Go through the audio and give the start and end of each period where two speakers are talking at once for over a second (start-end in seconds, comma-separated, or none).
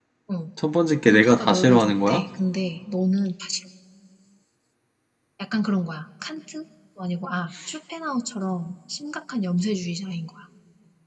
1.0-2.2